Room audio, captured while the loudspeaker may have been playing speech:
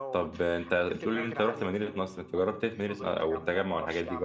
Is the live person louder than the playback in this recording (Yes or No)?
Yes